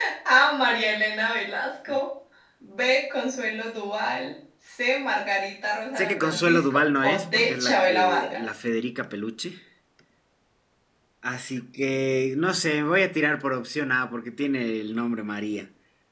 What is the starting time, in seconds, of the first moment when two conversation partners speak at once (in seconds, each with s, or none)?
6.0 s